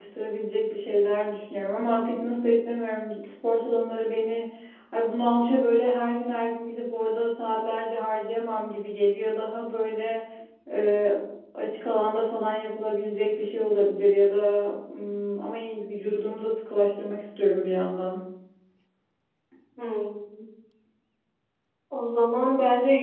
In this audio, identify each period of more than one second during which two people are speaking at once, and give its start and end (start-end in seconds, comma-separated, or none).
none